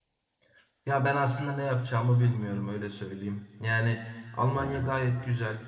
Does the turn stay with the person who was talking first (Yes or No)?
Yes